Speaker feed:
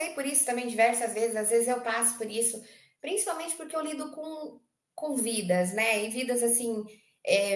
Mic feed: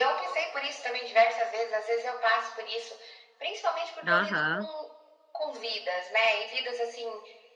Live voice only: Aham.

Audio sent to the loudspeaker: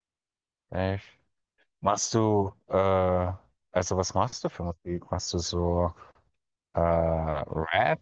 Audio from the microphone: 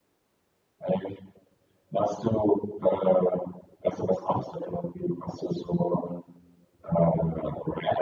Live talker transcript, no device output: none

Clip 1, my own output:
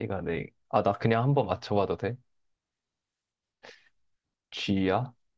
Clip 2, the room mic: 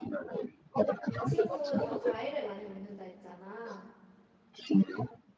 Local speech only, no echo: 이 친구가 과일을 많이 먹는다 했잖아.

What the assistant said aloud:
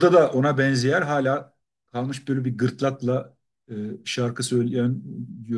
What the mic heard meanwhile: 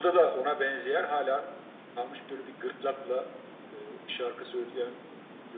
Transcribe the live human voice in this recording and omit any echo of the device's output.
none

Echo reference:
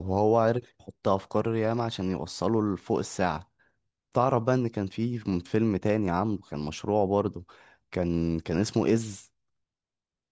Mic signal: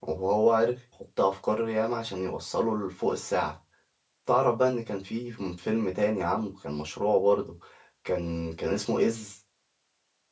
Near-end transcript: none

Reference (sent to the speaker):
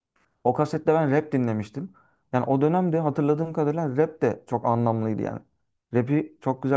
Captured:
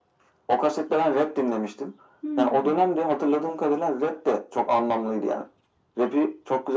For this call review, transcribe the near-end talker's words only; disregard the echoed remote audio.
Hmm.

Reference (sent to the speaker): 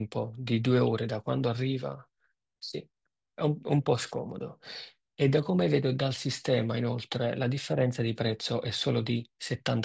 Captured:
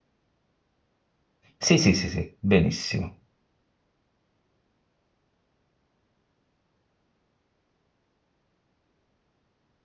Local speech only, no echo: Sì, sì, sì, sì, benissimo.

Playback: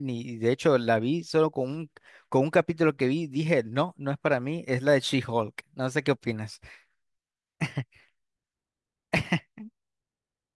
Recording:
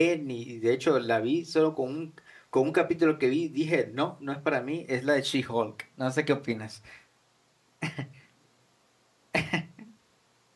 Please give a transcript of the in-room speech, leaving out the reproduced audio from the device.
none

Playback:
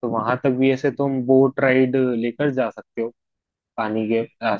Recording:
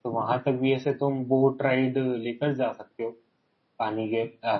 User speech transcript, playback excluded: none

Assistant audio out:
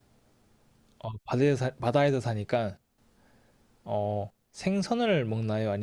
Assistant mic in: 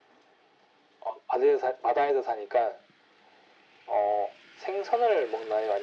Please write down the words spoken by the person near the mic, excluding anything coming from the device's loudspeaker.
none

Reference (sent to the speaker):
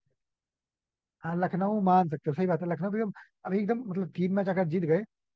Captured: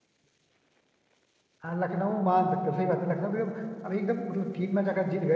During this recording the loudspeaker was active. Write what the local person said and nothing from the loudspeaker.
none

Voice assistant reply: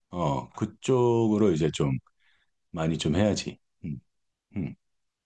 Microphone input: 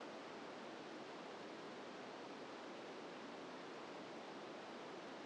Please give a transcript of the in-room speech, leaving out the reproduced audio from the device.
none

